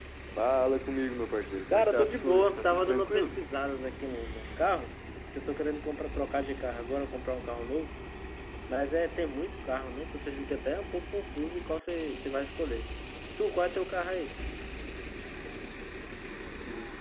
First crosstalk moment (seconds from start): 1.7 s

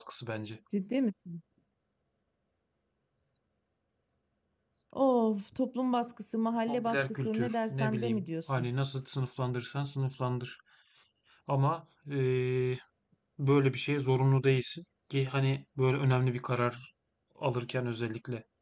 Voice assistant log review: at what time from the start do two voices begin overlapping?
6.7 s

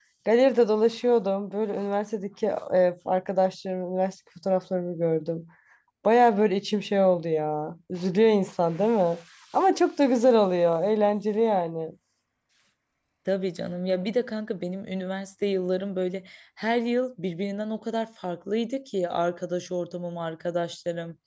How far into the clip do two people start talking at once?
none

